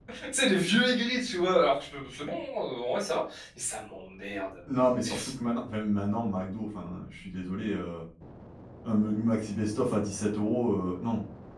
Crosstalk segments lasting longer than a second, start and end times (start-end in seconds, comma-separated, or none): none